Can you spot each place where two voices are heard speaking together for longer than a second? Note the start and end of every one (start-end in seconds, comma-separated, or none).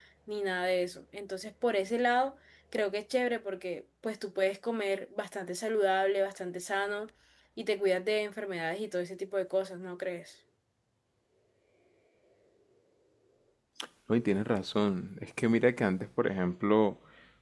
none